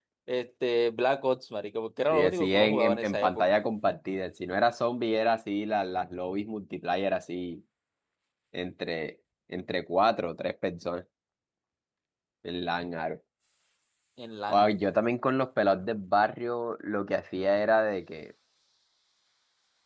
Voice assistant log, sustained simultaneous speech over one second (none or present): present